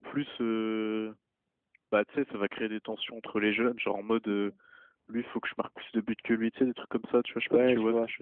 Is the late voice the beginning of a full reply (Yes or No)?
Yes